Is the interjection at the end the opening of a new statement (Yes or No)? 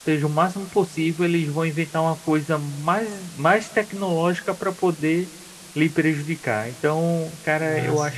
No